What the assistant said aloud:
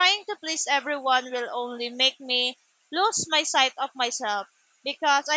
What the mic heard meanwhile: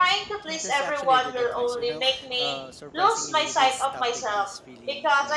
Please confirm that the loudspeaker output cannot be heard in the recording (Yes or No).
No